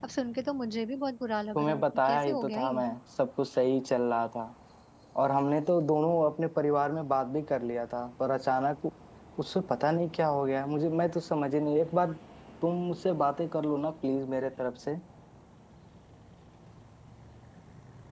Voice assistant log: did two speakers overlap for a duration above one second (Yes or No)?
Yes